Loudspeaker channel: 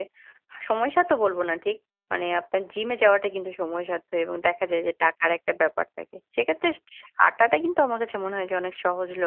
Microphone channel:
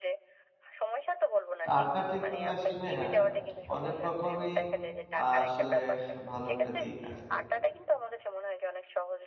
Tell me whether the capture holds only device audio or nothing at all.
No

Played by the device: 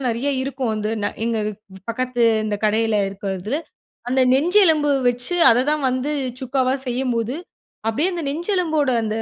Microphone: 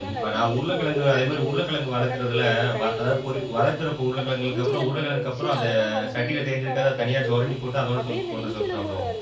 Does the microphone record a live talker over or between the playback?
Yes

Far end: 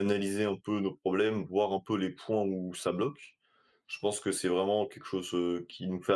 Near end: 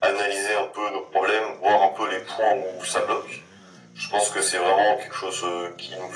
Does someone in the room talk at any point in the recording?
No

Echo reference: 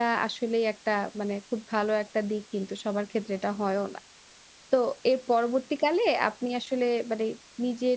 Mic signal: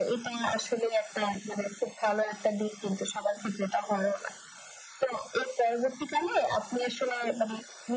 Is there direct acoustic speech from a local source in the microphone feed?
No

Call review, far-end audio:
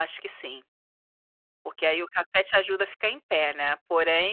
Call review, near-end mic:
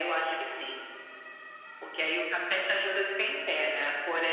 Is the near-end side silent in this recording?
Yes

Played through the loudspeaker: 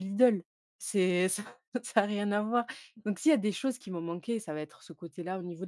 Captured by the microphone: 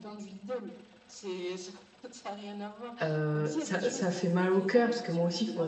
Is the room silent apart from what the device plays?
No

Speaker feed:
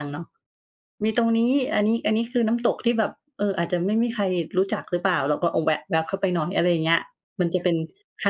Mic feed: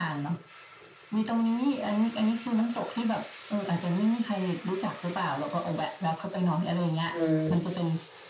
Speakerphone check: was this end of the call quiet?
No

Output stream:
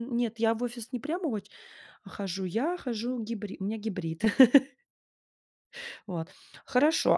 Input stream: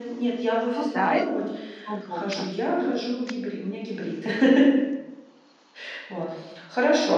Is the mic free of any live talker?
No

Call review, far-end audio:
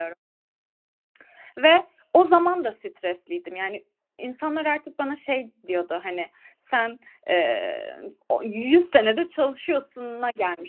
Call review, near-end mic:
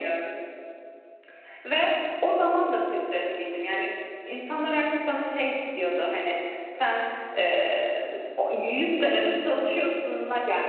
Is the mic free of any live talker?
Yes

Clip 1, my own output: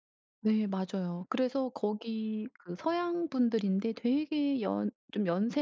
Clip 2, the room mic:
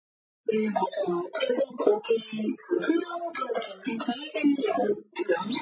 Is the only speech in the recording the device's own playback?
Yes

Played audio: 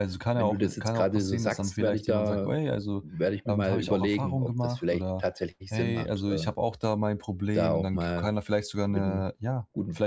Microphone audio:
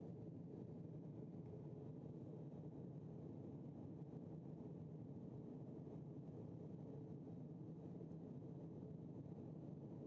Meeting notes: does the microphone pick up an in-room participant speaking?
No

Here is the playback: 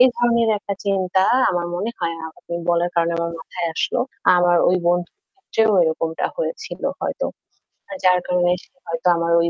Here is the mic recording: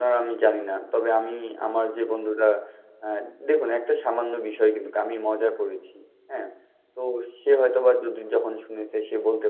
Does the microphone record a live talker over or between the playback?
Yes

